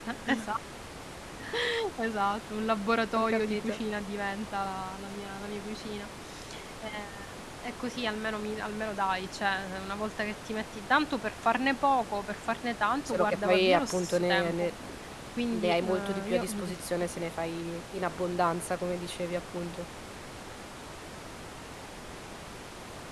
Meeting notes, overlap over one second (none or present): present